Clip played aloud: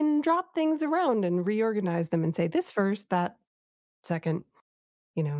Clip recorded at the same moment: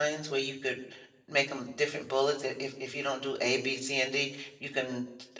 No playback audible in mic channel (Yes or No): Yes